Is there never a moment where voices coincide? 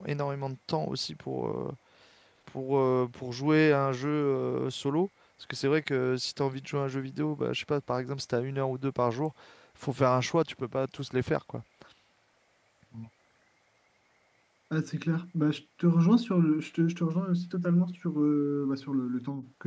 Yes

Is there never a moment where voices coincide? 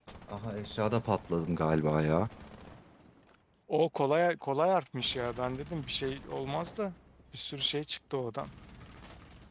Yes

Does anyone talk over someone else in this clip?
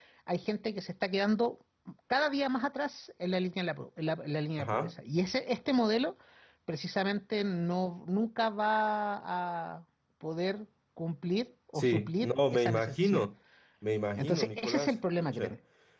Yes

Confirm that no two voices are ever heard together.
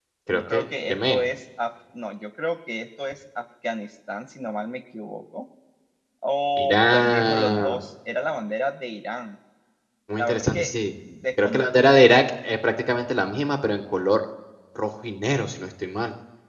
No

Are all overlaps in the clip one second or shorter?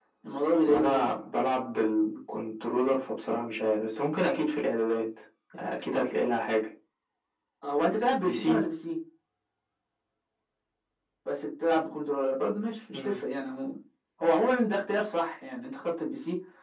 Yes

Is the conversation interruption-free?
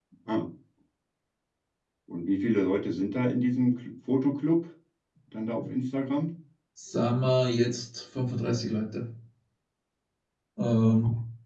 Yes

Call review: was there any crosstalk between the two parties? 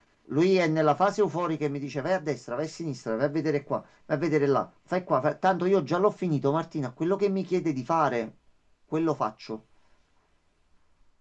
No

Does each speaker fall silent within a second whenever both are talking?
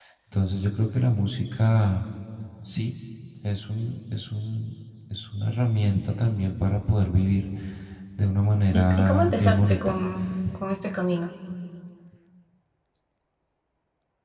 No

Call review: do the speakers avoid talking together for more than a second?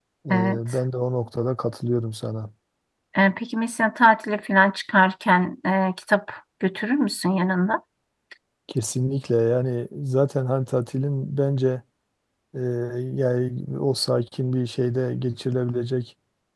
Yes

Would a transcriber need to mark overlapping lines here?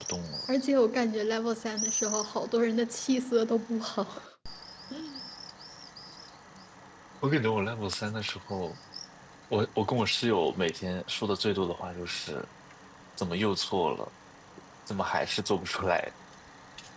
No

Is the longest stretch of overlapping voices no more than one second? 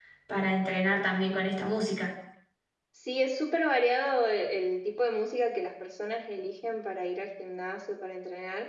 Yes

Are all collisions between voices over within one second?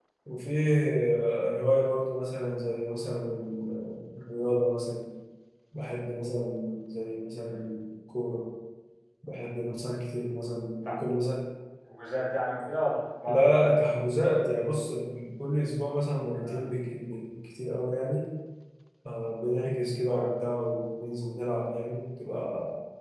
Yes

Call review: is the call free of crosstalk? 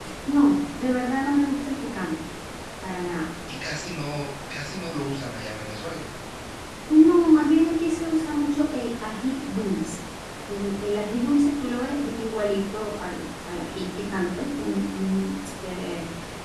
Yes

